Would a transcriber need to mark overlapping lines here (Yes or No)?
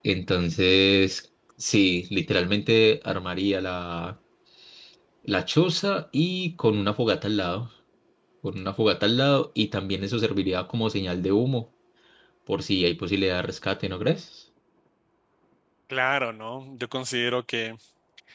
No